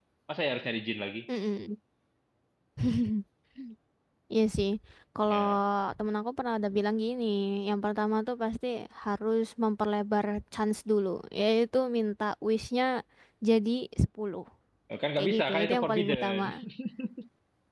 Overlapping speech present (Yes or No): Yes